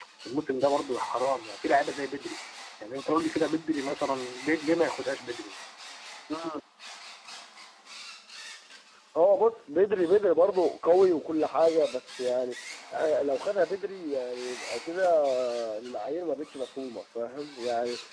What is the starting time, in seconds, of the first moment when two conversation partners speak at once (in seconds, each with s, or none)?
none